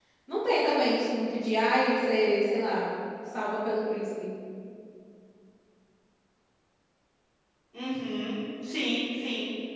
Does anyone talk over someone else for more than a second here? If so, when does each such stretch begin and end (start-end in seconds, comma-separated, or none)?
none